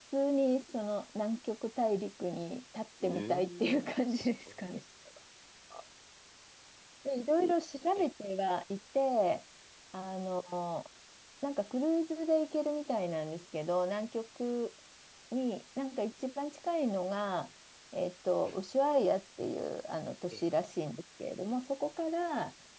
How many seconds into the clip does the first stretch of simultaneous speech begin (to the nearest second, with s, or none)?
3 s